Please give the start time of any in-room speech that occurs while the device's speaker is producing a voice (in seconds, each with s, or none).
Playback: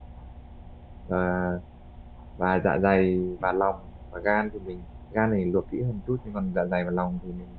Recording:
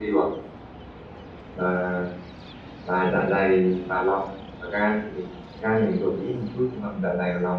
none